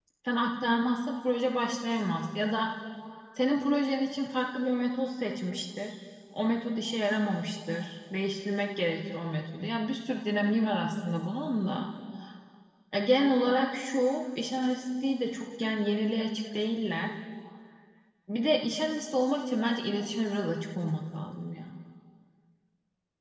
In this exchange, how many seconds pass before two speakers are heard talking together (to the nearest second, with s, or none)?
none